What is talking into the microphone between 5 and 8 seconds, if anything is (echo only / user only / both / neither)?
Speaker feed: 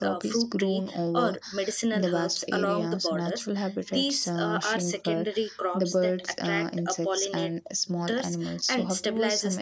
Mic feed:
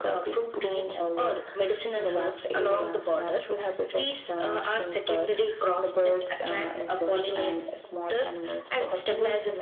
echo only